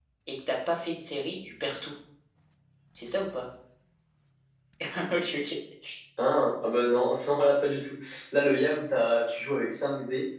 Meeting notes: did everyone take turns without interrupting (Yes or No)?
Yes